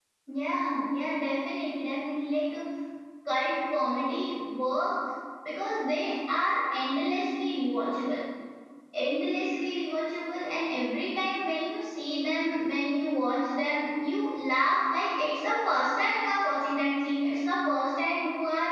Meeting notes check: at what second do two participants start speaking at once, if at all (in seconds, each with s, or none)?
none